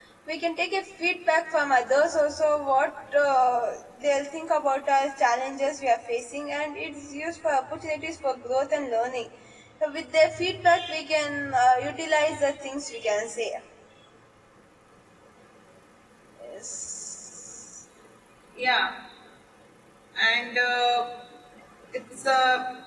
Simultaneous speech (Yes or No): No